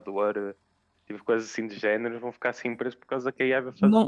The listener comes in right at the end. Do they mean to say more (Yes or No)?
Yes